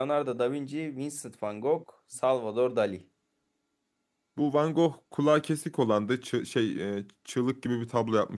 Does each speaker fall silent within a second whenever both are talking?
Yes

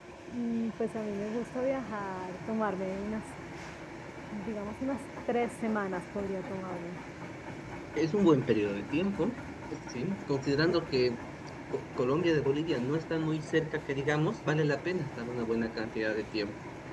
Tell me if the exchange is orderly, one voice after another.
Yes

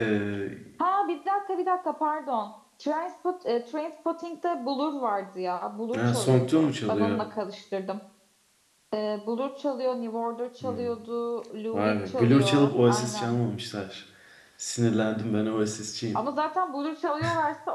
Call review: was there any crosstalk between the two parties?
Yes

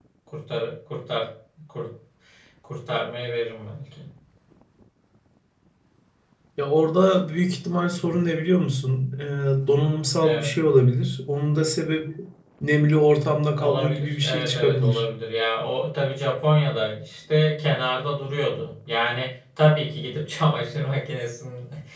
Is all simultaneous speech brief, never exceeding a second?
No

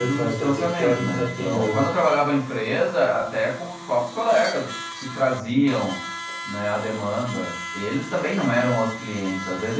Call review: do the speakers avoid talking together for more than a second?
No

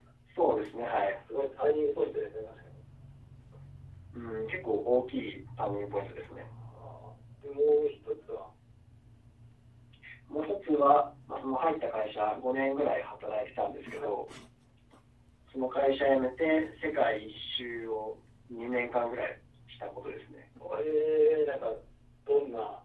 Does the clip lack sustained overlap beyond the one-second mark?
Yes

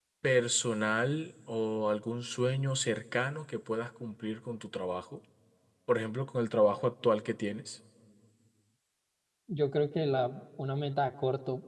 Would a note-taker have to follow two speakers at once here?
No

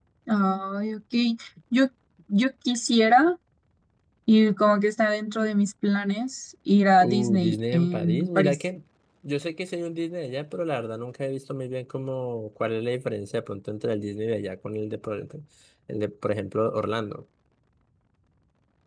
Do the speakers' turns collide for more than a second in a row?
Yes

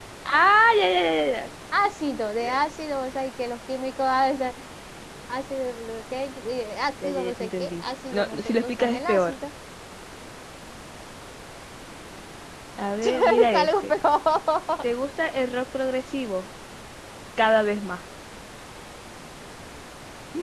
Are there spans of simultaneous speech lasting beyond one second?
Yes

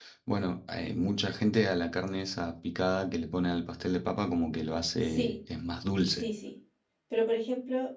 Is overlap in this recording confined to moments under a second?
Yes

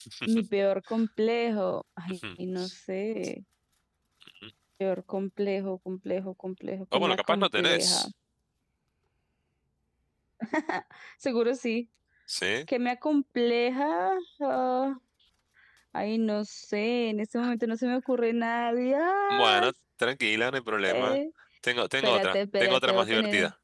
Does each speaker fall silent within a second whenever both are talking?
No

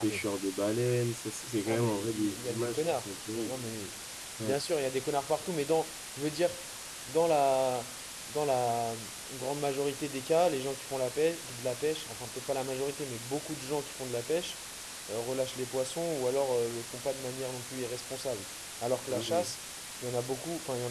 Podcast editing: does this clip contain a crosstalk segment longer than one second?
Yes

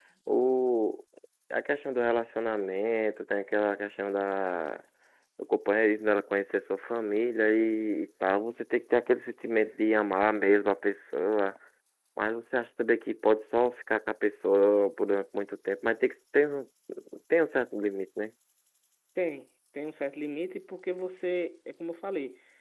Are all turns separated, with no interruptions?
Yes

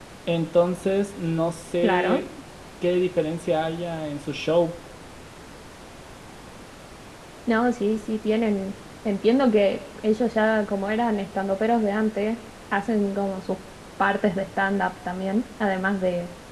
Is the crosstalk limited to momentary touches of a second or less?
Yes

